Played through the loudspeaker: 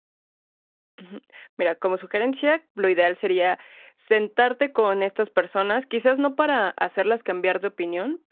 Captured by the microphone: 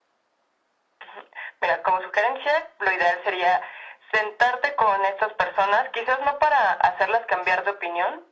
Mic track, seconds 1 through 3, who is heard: echo only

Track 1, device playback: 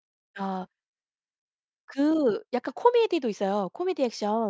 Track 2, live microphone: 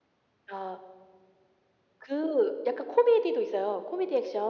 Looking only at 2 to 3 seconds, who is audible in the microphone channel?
echo only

